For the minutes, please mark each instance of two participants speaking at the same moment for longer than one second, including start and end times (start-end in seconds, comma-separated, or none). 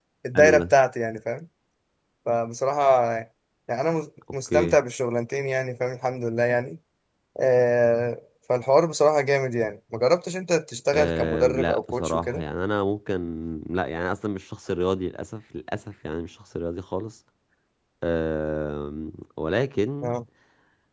10.9-12.4